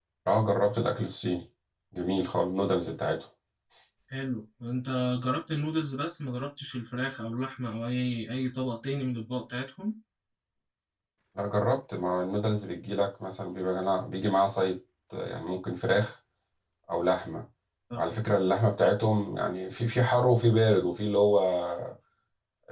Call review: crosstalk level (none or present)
none